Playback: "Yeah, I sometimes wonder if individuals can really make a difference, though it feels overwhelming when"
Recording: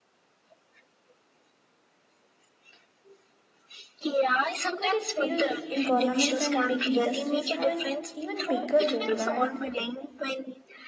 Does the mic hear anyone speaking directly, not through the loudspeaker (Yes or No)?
Yes